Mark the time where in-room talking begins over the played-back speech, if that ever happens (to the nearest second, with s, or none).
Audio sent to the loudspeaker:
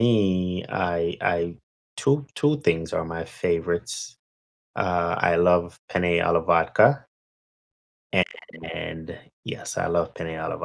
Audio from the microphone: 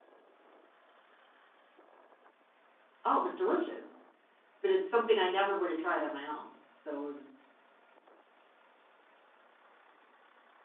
3 s